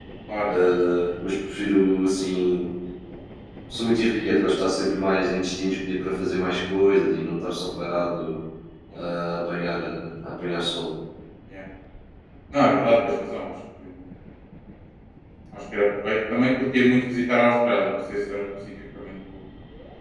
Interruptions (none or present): none